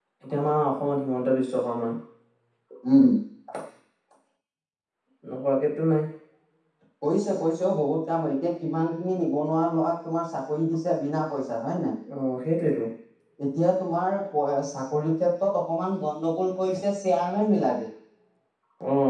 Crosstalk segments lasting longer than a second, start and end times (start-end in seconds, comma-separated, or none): none